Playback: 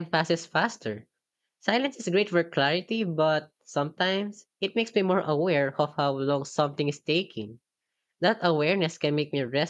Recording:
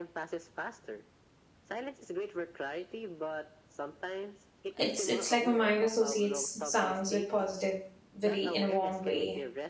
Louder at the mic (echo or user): user